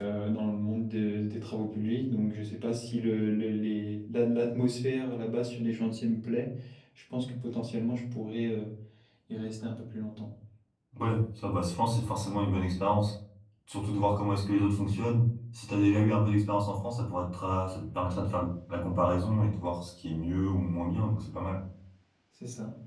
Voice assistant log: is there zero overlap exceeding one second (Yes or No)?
Yes